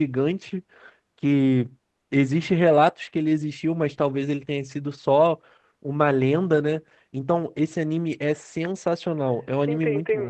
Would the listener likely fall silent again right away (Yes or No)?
No